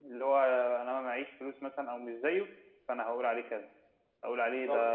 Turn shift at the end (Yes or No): No